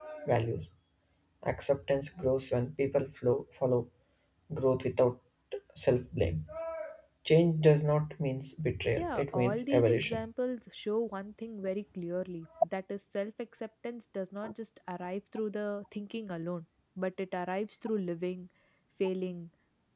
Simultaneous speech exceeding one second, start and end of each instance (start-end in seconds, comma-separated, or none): 9.0-10.3